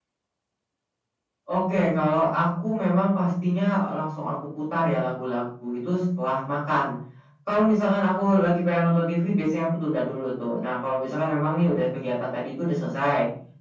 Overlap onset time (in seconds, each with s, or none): none